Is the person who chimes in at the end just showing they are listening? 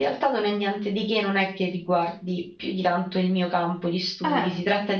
Yes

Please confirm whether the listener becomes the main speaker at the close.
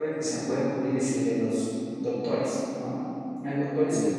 No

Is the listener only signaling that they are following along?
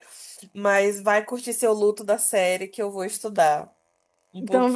No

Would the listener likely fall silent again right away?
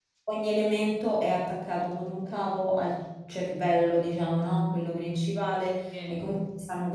Yes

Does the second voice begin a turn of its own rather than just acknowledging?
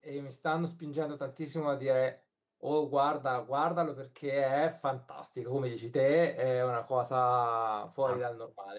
Yes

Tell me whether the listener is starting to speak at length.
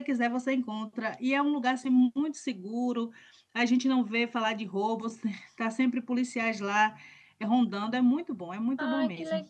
Yes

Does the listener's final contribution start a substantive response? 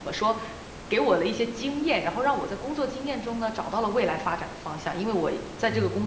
No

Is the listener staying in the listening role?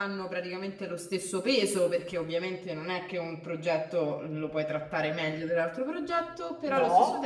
Yes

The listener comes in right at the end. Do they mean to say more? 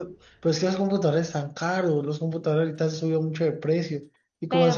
No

